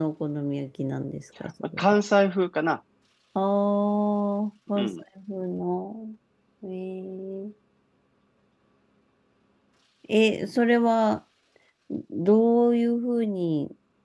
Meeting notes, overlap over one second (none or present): none